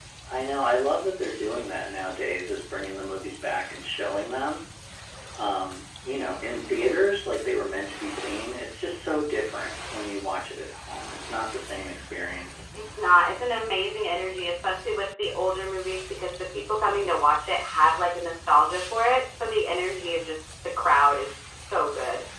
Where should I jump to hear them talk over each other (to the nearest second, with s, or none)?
none